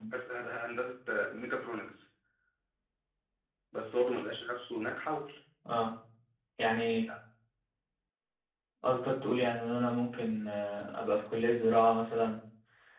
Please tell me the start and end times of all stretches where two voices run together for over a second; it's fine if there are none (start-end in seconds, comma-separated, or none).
none